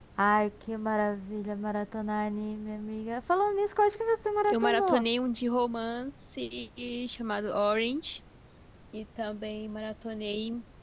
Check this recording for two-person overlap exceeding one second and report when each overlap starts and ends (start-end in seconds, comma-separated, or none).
none